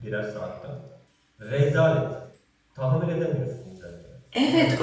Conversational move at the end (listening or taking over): taking over